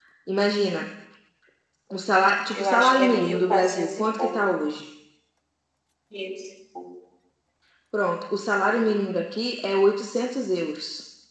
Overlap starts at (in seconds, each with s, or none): 2.5 s